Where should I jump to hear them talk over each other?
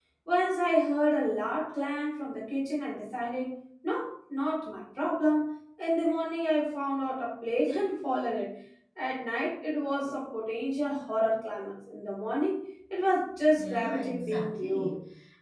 13.6 s

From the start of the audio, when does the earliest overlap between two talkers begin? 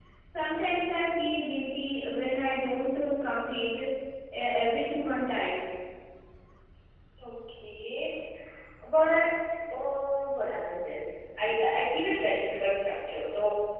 none

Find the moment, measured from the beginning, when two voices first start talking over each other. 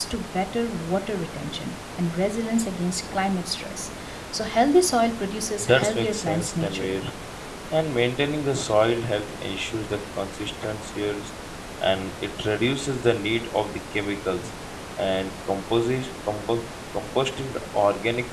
5.6 s

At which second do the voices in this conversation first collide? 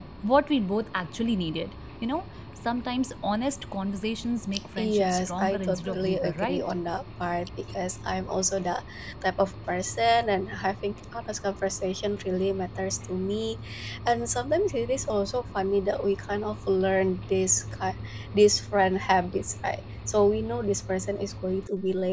4.8 s

